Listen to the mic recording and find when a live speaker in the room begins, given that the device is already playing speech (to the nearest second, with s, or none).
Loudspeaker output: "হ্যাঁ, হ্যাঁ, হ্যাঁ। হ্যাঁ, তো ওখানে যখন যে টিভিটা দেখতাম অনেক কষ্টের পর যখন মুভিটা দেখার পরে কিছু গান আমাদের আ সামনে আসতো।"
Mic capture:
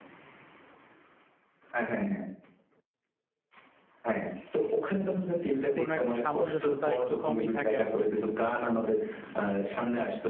6 s